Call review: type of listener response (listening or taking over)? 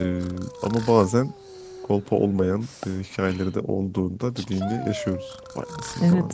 taking over